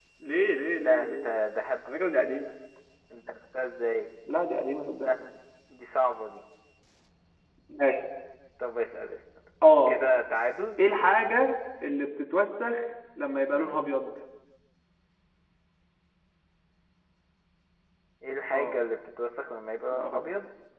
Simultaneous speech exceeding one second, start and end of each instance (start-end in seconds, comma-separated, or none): none